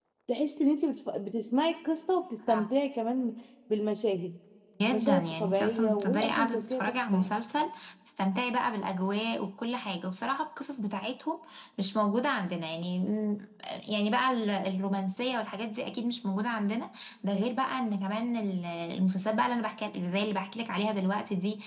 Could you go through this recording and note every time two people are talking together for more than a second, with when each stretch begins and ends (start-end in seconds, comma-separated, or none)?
4.9-7.3